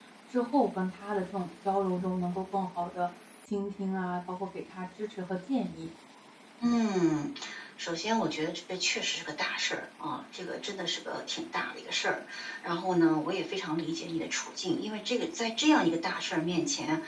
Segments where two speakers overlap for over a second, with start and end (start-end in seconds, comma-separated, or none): none